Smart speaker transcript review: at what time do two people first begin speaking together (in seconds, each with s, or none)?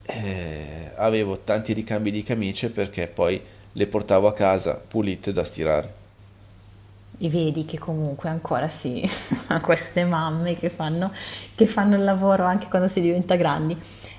none